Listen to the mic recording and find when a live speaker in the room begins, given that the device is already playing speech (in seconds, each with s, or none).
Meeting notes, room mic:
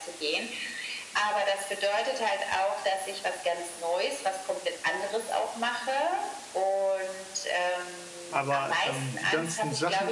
8.3 s